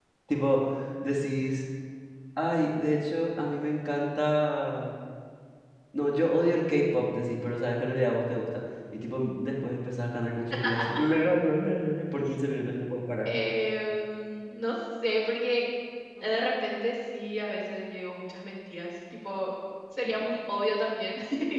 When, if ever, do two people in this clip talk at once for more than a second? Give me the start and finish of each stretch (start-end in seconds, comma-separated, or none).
none